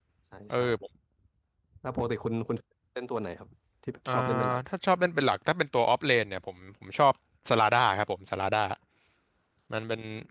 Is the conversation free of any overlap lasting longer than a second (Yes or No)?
Yes